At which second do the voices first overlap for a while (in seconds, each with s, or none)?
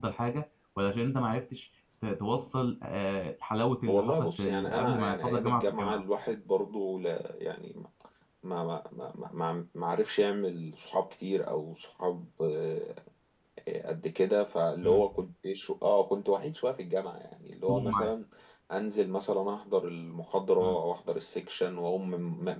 3.9 s